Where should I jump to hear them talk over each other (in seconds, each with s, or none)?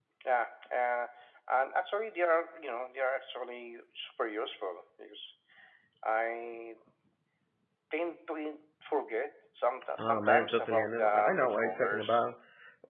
10.0 s